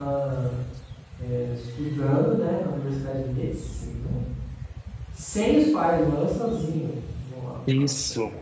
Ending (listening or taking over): listening